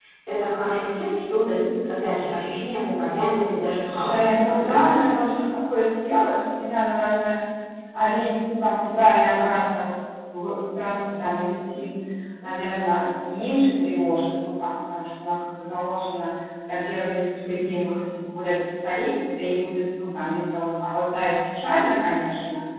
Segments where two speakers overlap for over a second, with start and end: 3.8-5.1

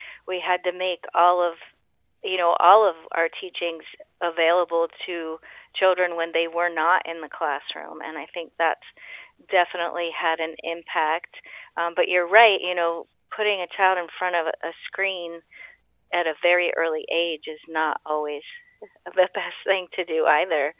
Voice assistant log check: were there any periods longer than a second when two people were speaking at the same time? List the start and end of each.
none

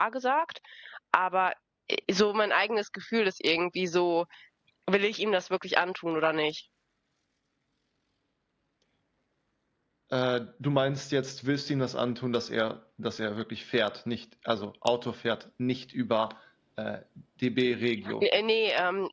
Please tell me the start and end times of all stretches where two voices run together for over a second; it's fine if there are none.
none

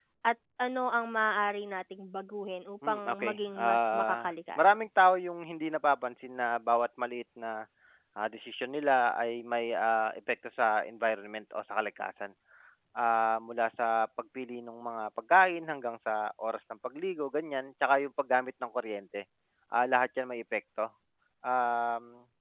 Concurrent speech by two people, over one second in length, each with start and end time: 2.9-4.6

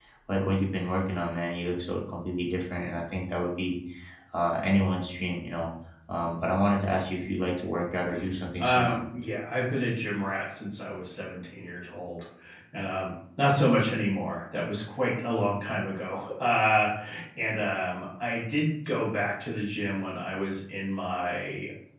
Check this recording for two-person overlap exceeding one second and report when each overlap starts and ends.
none

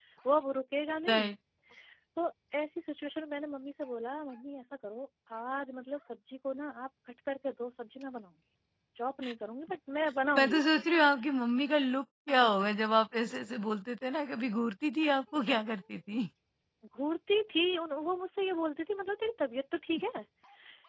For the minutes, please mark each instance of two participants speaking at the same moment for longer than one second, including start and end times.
none

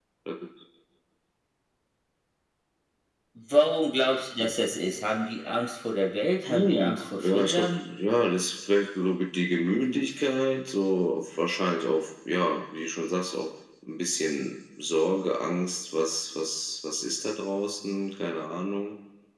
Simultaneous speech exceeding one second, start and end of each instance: 6.5-7.8

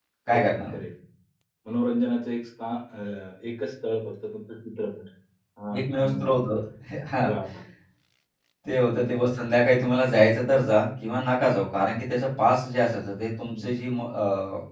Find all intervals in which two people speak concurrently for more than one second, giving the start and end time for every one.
none

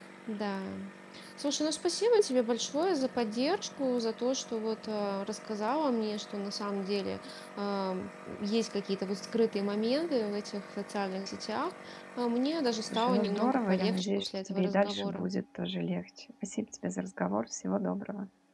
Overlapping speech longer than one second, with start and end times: 12.9-15.3

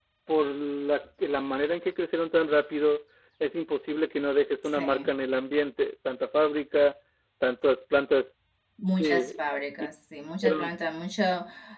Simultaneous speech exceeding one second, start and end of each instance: none

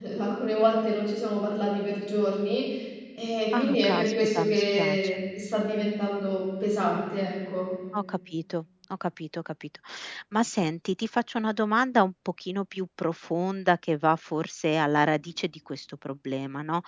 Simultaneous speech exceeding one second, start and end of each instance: 3.6-5.1

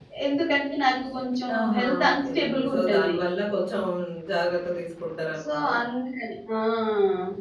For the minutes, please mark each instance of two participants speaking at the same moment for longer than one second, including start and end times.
1.6-3.1

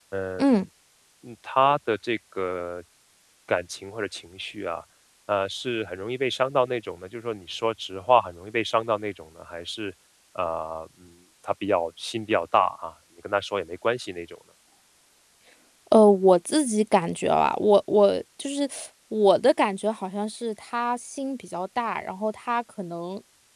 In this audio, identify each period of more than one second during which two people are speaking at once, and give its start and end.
none

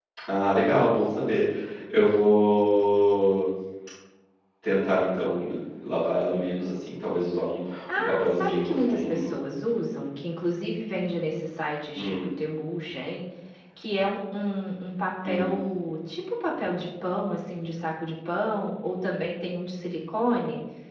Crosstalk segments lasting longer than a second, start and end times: 8.0-9.3

